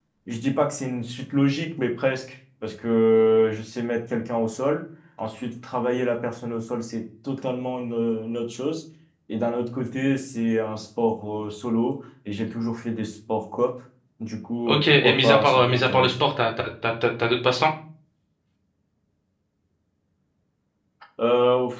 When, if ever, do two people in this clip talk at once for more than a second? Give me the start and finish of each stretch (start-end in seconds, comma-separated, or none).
14.7-16.1